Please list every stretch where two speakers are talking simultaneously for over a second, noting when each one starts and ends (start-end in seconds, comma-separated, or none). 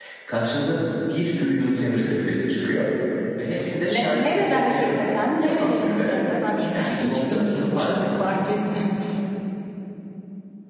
3.9-6.2, 6.7-8.2